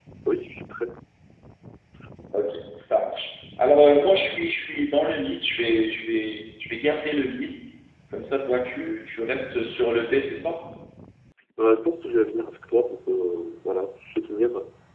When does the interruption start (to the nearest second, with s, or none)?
none